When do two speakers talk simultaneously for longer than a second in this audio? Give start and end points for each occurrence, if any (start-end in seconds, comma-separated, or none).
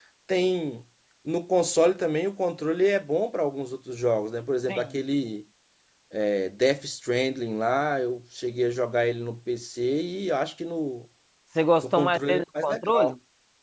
11.8-13.1